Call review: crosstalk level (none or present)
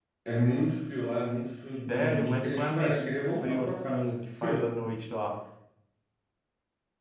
present